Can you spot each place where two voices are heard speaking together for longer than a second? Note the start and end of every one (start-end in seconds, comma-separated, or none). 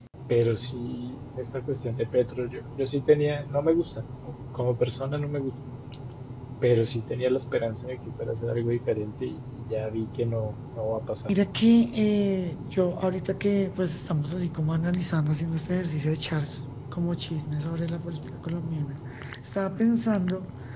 none